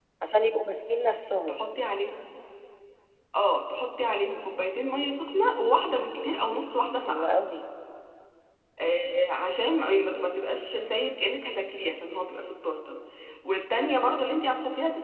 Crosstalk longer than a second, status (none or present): none